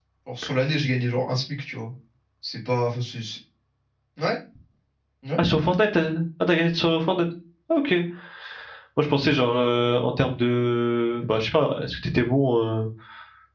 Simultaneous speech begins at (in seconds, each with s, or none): none